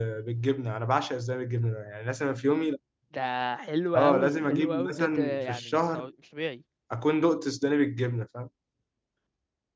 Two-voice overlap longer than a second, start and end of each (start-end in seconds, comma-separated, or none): 4.0-6.1